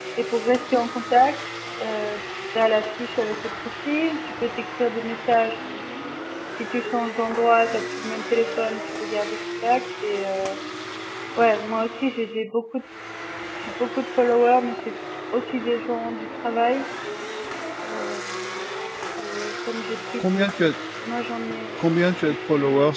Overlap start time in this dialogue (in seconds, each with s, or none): none